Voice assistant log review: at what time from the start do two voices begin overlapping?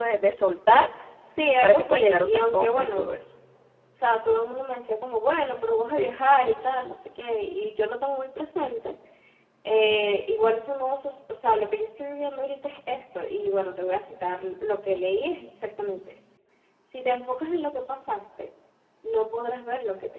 1.6 s

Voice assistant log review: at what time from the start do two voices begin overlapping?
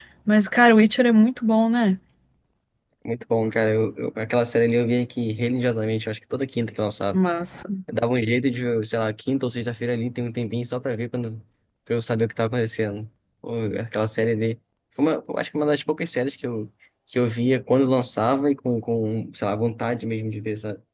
none

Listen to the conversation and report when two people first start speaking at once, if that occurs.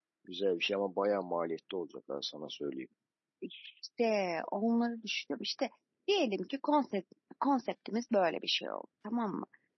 none

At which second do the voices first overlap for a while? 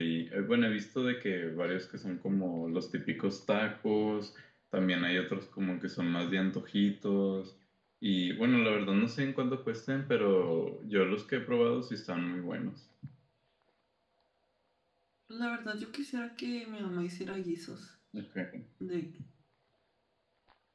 none

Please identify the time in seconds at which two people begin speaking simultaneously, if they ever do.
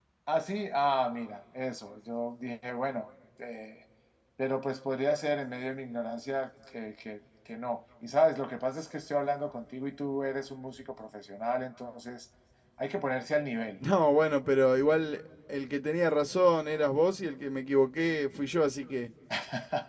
none

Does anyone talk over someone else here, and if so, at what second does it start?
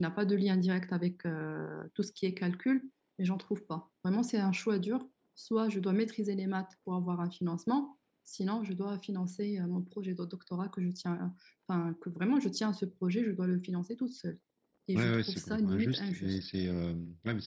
14.9 s

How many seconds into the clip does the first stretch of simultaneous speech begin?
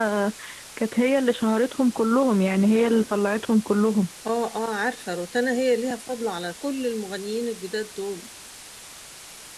none

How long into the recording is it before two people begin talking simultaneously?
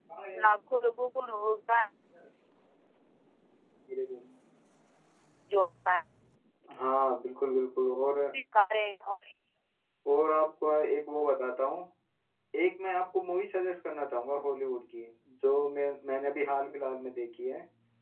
none

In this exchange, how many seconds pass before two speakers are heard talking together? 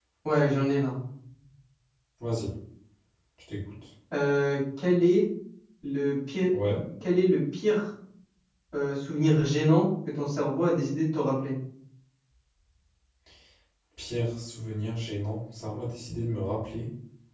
none

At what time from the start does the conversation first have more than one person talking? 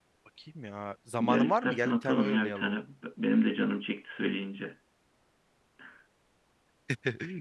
1.2 s

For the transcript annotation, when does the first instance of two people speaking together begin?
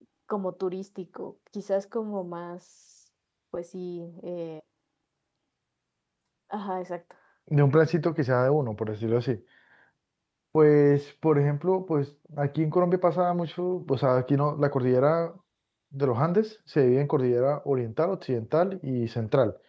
none

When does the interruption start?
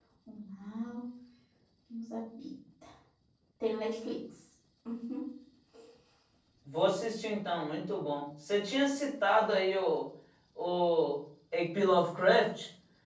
none

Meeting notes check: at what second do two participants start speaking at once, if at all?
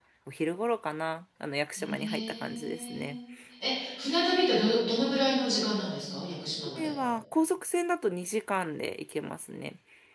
1.8 s

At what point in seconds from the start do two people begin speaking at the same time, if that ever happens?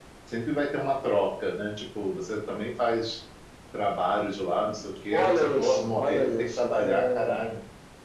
5.1 s

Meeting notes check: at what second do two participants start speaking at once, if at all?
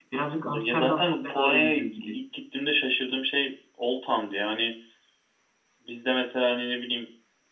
0.5 s

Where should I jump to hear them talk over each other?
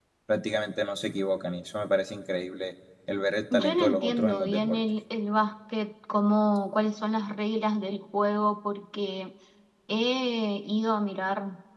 3.5 s

